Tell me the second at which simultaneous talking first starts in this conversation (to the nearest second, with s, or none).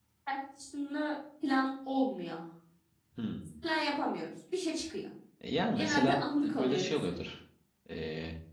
6 s